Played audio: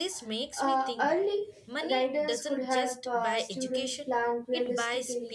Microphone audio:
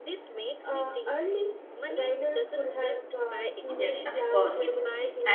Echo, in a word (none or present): present